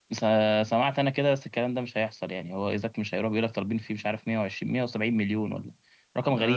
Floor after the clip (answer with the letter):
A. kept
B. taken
B